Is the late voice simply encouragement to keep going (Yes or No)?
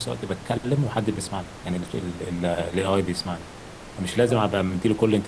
Yes